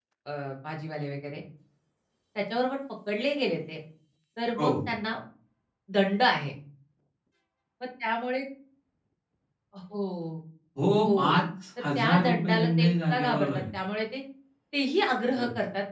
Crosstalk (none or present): present